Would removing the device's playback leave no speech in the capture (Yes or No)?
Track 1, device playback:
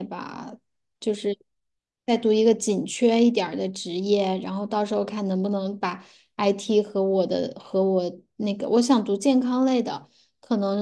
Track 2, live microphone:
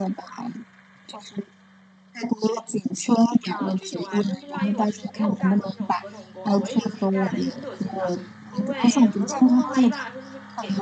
No